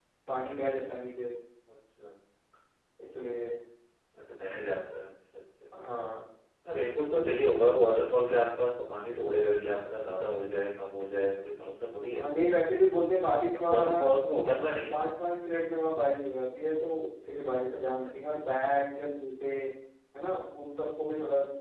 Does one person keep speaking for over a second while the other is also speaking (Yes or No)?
No